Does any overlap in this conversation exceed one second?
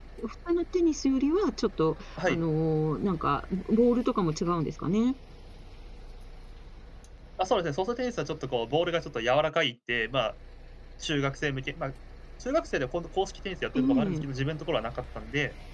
No

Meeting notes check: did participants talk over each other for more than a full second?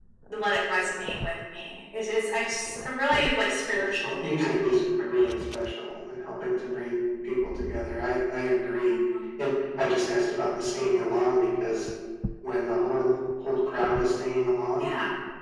Yes, from 3.7 s

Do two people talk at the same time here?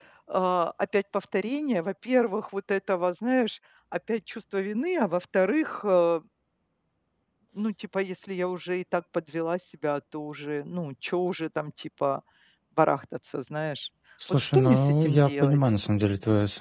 Yes, from 14.2 s

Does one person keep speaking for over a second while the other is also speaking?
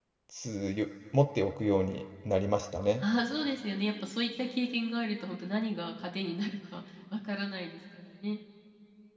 No

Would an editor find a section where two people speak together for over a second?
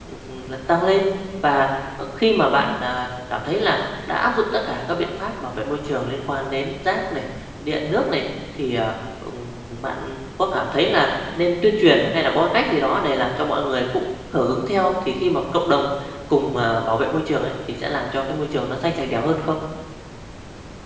No

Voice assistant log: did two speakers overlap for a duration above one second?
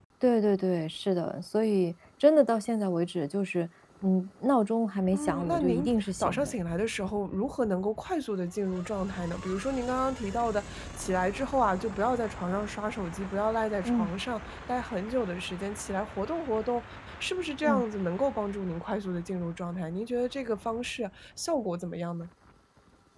Yes, from 5.1 s

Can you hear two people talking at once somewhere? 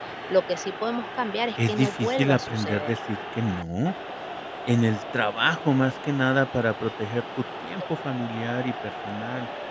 Yes, from 1.6 s

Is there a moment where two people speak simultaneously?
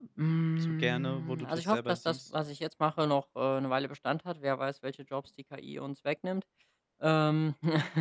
Yes, from 0.6 s

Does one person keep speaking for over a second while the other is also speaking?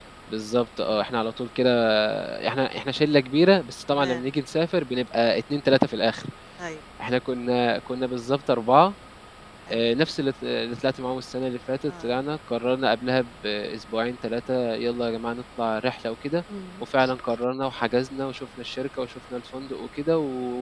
No

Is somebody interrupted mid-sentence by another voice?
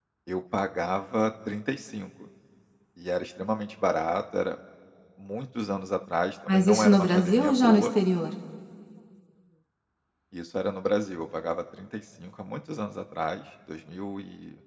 Yes, from 6.5 s

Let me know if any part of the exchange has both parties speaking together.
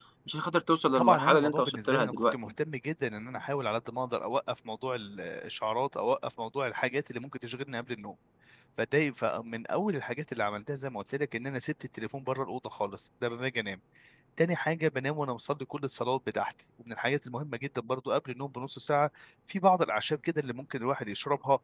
Yes, from 0.9 s

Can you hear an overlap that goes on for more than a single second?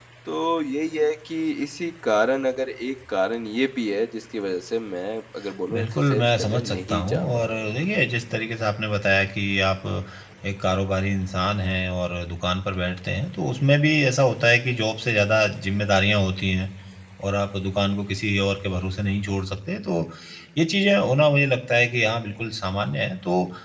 Yes, from 5.7 s

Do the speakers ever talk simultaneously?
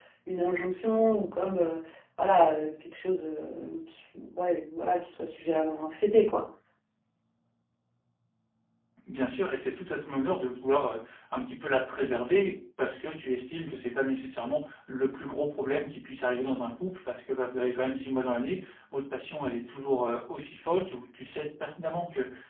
No

